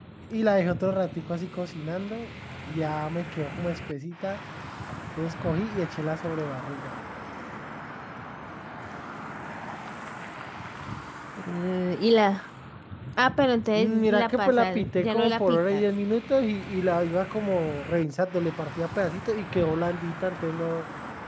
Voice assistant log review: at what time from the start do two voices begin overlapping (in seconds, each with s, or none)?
13.7 s